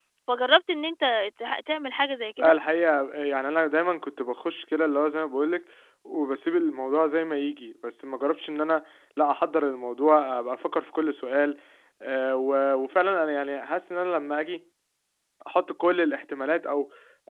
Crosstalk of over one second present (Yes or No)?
No